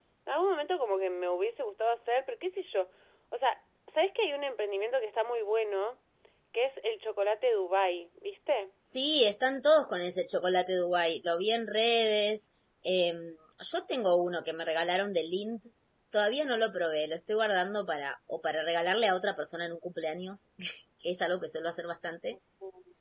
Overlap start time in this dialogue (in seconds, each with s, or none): none